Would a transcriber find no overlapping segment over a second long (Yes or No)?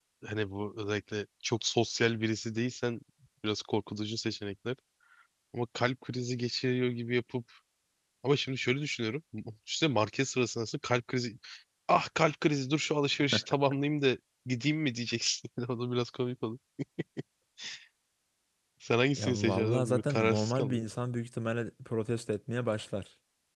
No